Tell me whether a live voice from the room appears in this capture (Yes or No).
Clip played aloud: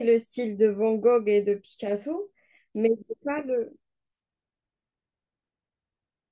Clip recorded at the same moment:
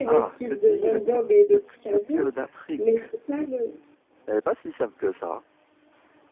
Yes